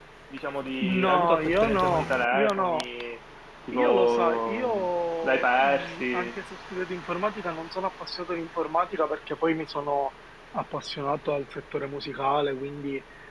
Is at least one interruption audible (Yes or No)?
Yes